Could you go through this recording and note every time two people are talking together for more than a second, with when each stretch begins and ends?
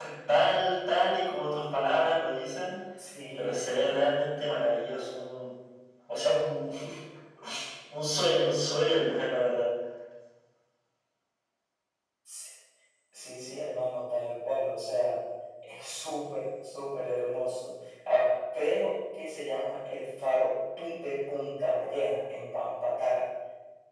none

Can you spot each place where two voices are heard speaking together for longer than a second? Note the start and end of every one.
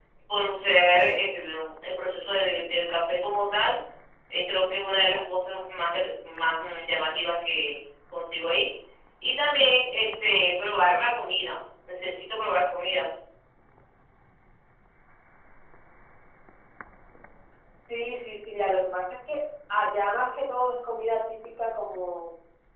none

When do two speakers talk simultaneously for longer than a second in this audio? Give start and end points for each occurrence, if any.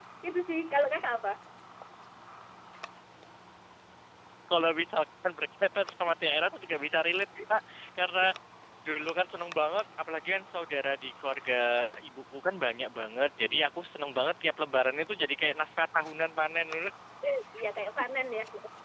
none

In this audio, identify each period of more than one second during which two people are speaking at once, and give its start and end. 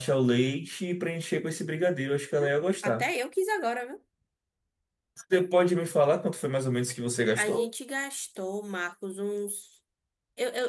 none

